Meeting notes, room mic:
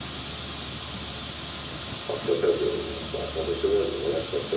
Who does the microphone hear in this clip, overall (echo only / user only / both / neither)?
echo only